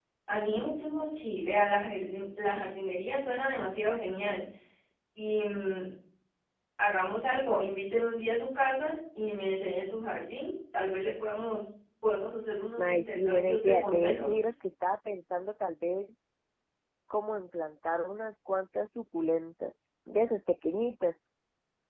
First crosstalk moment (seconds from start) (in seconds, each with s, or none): 12.8 s